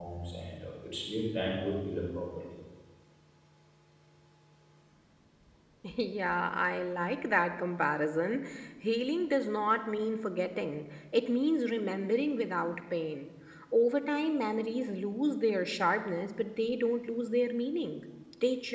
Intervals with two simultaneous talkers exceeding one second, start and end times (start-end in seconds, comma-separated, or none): none